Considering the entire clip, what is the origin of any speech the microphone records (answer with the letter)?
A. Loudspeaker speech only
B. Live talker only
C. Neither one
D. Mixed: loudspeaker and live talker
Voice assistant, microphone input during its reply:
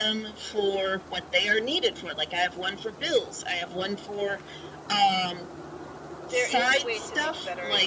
D